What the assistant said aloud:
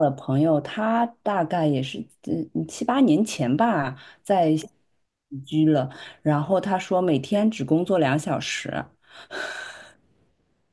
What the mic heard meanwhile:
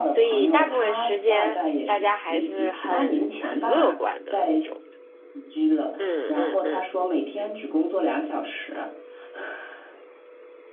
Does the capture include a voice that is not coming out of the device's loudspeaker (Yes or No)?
Yes